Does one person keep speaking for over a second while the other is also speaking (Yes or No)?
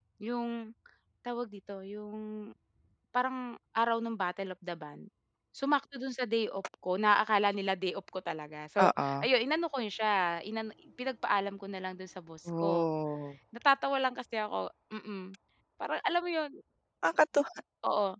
No